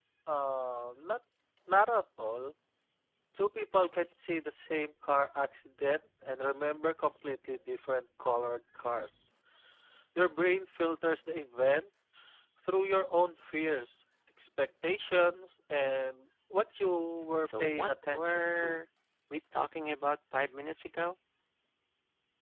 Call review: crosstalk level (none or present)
present